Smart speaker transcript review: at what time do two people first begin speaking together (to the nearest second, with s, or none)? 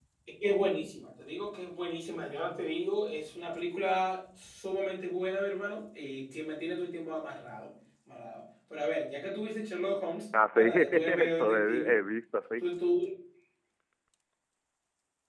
10 s